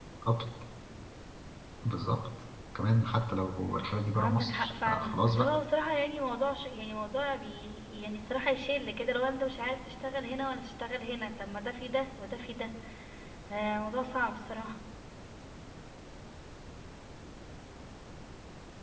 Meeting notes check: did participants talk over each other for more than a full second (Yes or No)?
Yes